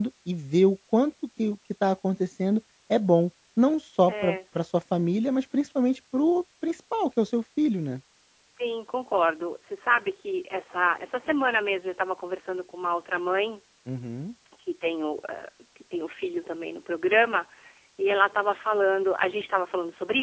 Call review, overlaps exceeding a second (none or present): none